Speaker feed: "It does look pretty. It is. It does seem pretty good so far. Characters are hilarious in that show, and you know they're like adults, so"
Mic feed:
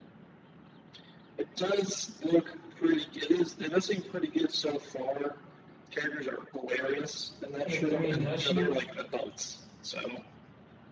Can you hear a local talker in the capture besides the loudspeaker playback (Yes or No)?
Yes